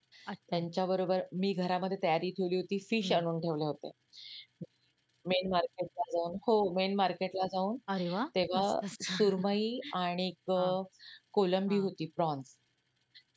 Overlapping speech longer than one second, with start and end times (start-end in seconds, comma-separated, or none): none